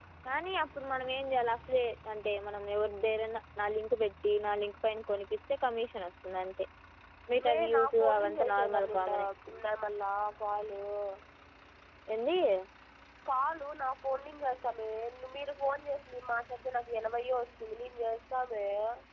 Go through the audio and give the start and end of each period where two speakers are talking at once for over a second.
7.5-9.3

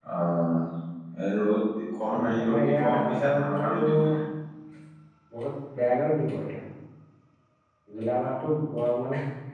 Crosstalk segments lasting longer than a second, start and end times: 2.1-3.9

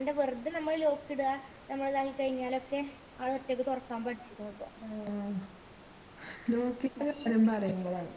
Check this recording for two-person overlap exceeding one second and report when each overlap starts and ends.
none

